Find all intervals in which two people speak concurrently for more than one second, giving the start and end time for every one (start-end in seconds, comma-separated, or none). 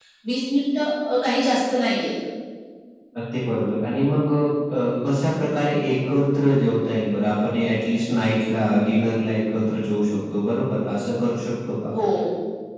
none